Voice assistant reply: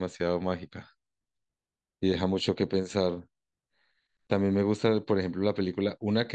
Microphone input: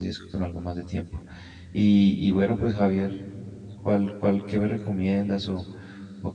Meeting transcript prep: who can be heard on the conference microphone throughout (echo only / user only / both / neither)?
user only